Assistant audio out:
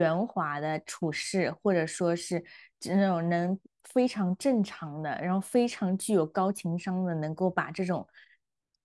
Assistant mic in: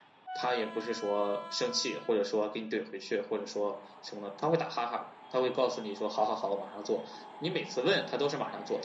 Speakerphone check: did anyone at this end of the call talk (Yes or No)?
Yes